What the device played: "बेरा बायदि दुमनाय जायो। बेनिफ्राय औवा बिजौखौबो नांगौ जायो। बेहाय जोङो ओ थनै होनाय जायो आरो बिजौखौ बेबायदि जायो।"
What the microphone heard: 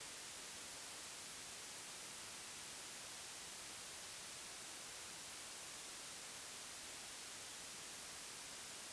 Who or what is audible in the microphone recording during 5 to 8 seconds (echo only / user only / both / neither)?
neither